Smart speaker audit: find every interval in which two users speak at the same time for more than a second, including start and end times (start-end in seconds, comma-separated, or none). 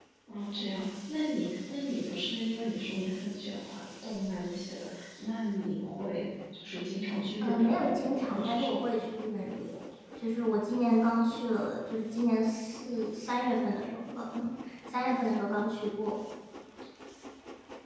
7.4-9.1